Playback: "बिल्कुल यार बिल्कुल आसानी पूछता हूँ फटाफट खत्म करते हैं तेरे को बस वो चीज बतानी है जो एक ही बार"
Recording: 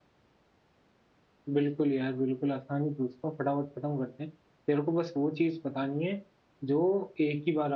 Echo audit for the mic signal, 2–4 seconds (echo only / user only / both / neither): echo only